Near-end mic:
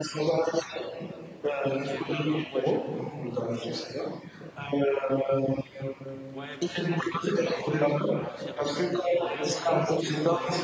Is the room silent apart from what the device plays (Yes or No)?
No